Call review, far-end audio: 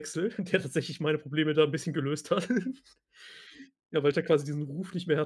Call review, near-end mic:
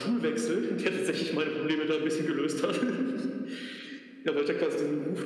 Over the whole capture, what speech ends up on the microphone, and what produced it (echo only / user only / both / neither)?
echo only